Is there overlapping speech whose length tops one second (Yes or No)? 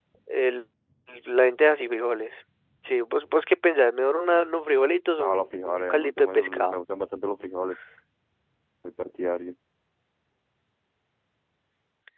Yes